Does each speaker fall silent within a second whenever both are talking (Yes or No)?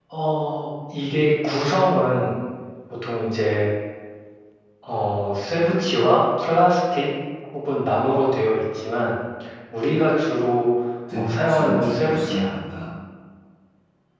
No